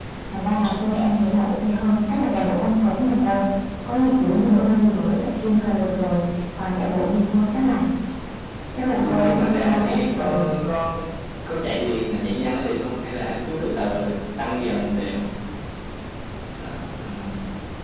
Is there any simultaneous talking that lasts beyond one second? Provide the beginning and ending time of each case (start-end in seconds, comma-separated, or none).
8.9-10.4